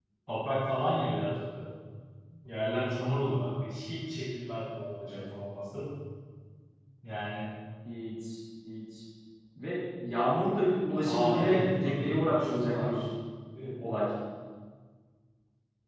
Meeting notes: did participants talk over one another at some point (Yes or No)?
Yes